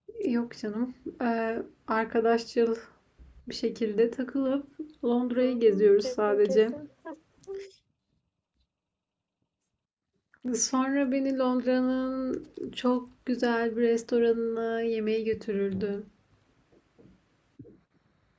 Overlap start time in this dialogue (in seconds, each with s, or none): 5.4 s